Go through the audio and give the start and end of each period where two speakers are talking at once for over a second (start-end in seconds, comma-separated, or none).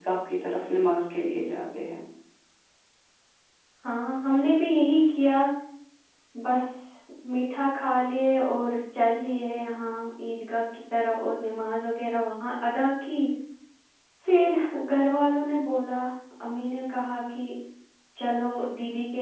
none